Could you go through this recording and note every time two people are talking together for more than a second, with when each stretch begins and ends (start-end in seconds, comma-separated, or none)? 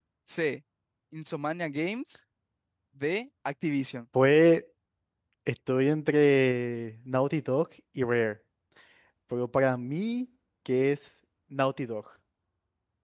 none